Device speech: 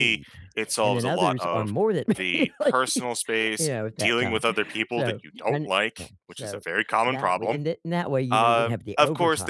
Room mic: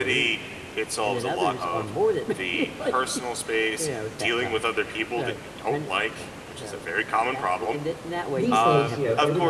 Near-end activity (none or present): present